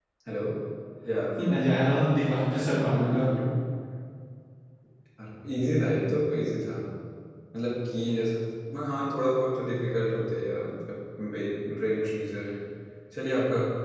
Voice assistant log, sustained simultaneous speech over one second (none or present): none